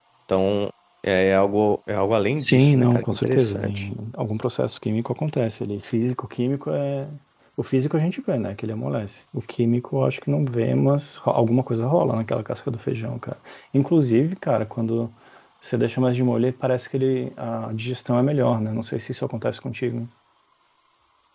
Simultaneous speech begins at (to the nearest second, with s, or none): 2 s